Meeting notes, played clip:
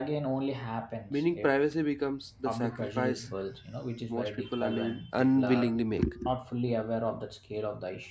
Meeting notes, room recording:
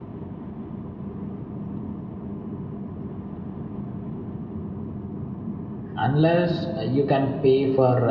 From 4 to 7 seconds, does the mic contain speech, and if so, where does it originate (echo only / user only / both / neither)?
user only